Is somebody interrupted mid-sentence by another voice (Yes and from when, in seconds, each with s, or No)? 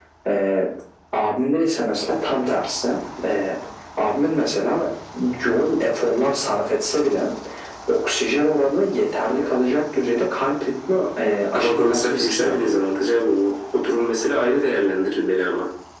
Yes, from 11.5 s